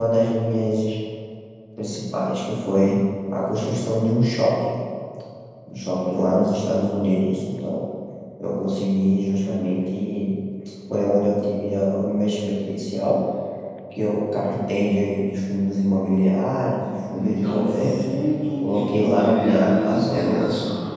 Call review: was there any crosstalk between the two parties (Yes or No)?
Yes